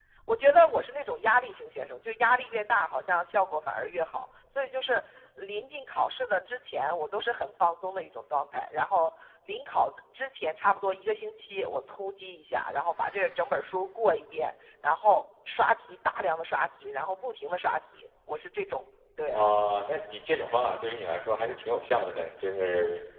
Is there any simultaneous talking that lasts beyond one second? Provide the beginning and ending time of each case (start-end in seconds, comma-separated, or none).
none